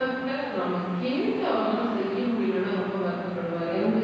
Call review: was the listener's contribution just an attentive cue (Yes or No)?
No